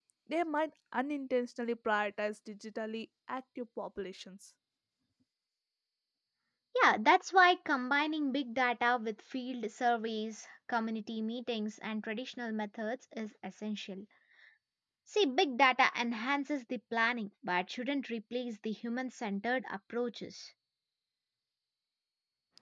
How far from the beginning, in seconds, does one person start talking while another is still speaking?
none

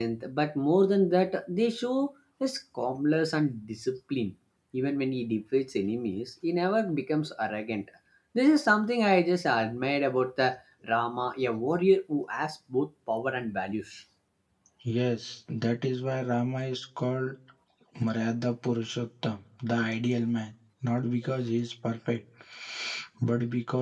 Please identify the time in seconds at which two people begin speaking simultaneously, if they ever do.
none

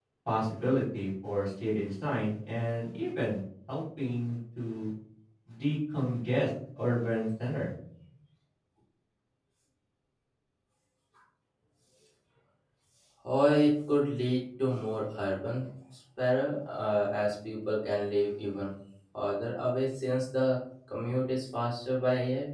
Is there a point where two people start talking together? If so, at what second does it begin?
none

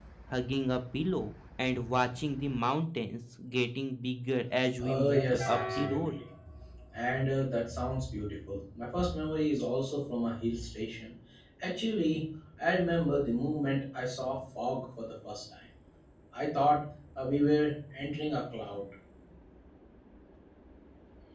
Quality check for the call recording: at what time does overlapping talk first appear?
5 s

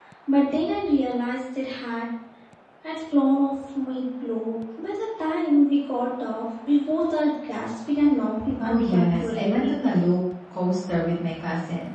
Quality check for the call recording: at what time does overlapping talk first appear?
9 s

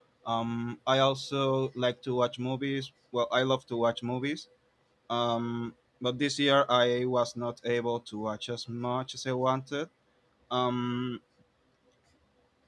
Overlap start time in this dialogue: none

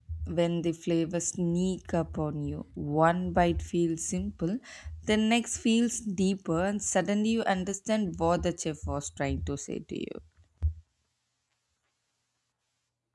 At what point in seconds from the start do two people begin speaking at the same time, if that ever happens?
none

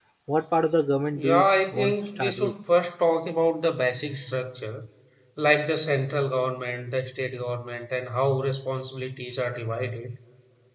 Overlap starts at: 1 s

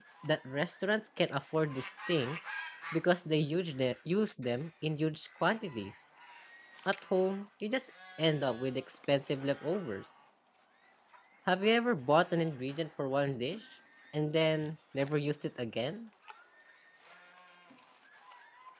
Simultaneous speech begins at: none

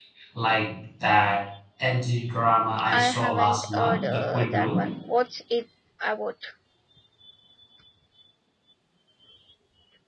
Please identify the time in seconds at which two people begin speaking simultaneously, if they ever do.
3 s

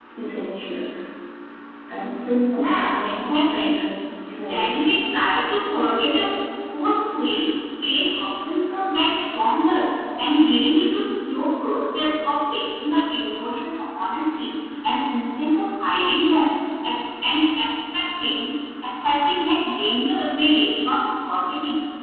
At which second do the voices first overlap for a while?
3 s

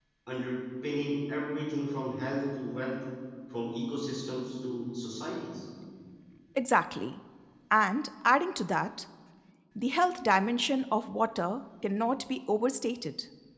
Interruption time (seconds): none

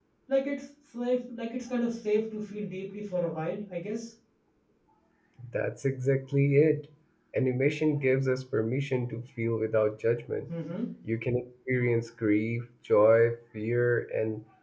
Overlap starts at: none

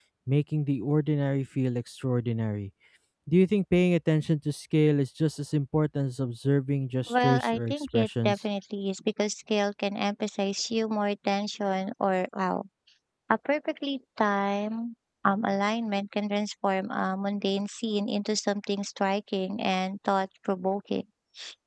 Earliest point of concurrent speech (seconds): 7 s

